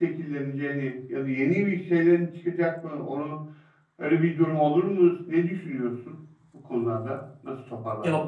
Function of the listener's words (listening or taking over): taking over